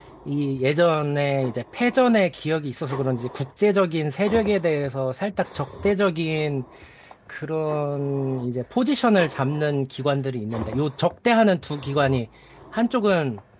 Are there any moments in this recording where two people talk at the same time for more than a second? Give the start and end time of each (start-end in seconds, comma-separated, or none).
none